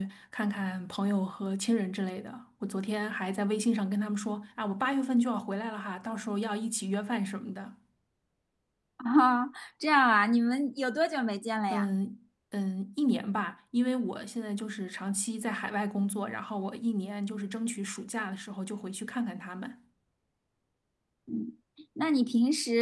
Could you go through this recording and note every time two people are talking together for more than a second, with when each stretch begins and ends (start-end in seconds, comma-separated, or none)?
none